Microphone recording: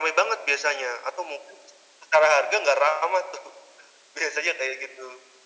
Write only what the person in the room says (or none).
none